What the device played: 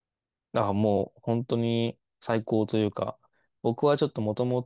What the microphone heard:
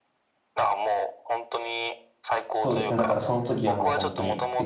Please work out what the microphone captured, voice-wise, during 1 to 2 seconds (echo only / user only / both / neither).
echo only